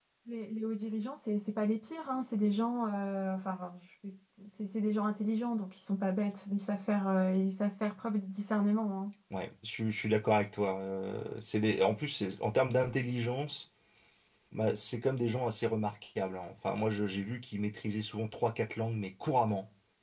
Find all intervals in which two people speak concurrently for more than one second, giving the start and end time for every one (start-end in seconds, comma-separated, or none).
none